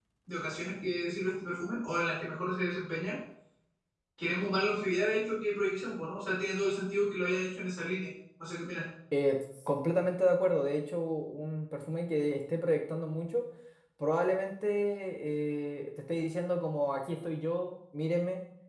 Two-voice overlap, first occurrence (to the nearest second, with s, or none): none